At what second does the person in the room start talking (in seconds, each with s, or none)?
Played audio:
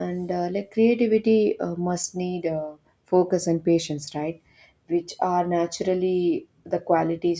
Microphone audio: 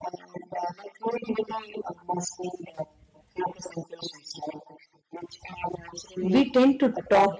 6.2 s